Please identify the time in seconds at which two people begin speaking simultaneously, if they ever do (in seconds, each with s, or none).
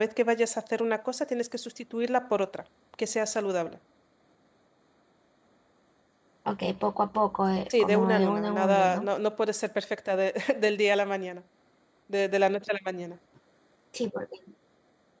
7.7 s